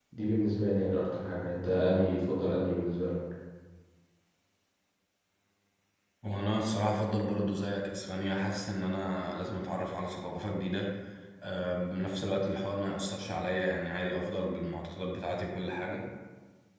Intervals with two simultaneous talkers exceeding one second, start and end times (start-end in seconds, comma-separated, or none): none